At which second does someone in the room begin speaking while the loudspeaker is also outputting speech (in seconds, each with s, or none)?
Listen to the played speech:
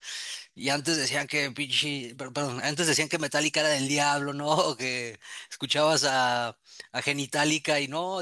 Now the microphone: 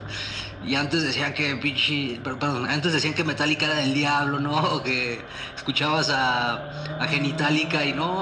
none